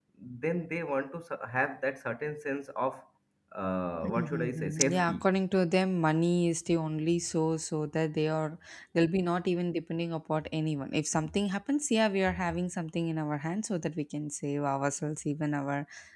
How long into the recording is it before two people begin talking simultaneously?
4.0 s

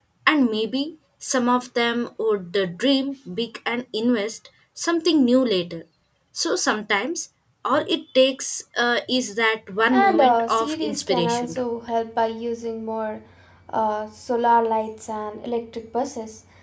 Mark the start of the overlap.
9.9 s

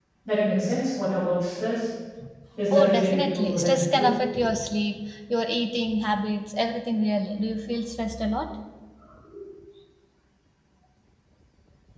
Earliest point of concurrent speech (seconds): 2.7 s

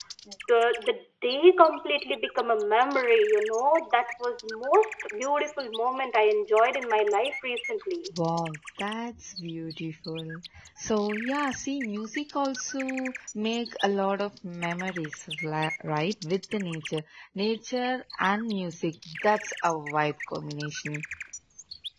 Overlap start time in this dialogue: none

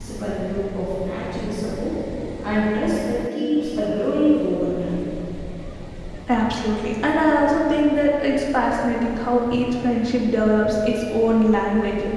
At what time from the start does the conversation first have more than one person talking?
none

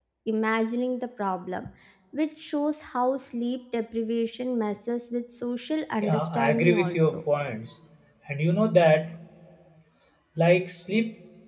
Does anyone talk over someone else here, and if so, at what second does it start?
6.0 s

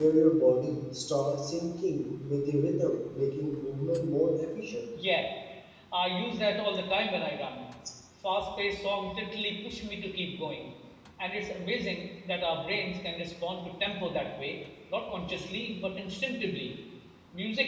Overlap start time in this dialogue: none

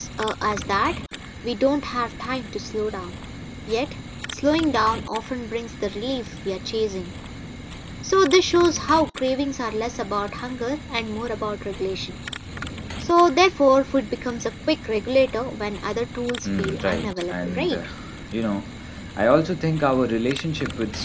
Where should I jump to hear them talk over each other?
16.4 s

